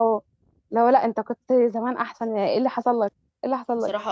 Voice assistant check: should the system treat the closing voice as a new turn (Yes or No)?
Yes